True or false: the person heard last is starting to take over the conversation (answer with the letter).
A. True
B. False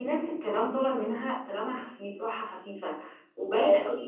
B